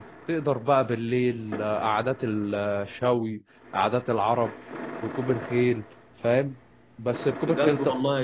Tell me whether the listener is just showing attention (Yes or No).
No